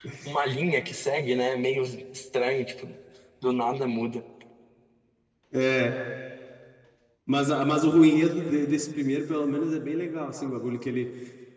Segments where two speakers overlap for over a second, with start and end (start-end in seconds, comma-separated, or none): none